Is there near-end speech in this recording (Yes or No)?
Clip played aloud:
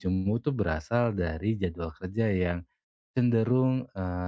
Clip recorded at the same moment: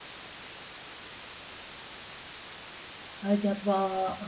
Yes